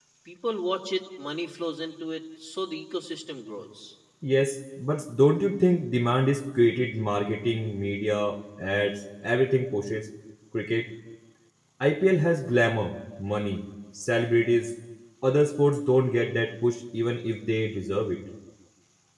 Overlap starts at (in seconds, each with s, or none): none